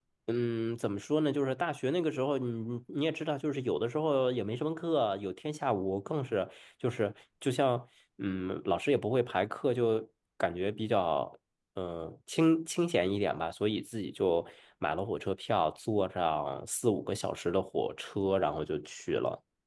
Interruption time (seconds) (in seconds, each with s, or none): none